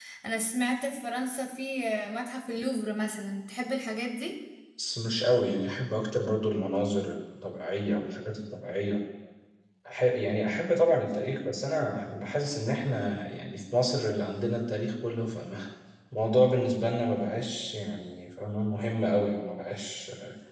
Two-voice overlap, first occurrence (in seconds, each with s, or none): none